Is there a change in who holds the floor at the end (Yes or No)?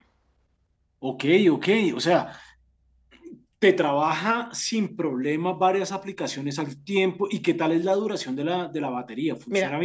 Yes